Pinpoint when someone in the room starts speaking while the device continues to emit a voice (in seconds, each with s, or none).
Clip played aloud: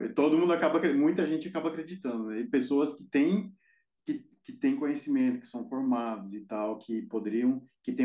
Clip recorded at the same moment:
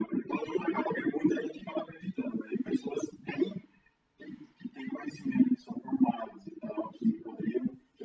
none